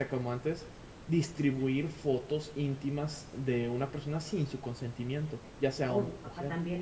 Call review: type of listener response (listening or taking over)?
taking over